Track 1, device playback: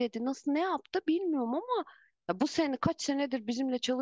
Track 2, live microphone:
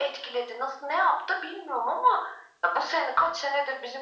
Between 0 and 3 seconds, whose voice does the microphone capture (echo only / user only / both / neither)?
echo only